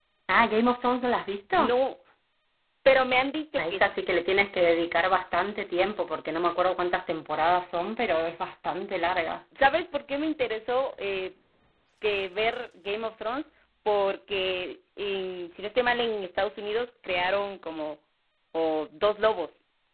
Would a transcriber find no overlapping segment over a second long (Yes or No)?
Yes